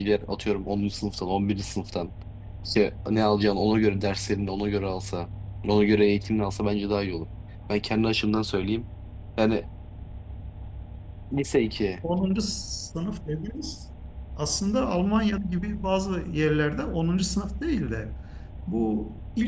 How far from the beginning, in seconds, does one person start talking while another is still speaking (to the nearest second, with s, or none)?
none